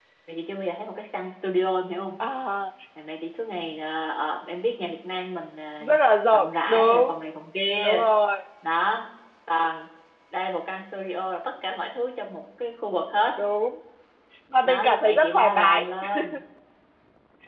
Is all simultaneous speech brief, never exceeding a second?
No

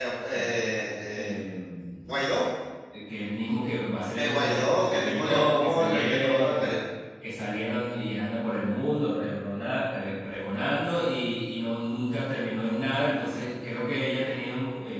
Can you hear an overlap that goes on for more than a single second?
Yes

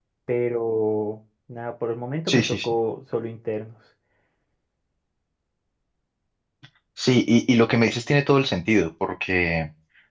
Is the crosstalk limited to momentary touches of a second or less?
Yes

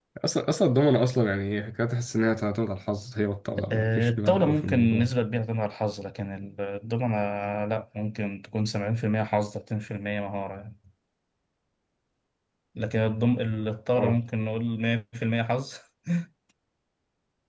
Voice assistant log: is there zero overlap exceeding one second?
No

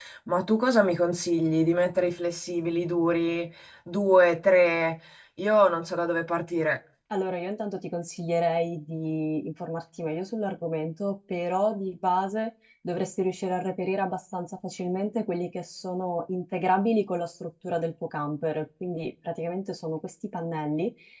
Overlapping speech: No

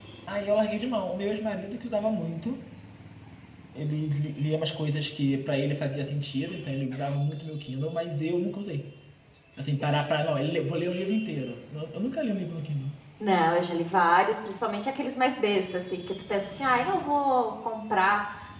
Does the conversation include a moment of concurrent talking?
No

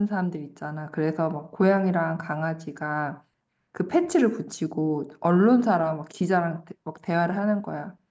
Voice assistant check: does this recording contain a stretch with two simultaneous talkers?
No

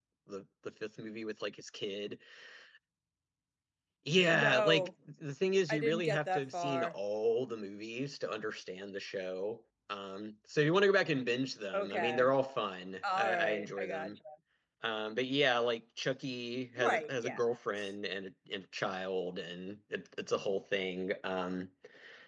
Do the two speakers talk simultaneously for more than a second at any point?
Yes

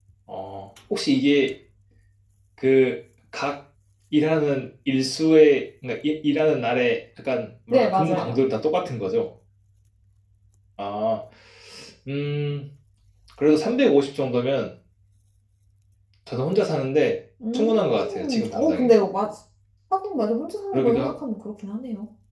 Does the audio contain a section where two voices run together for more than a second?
Yes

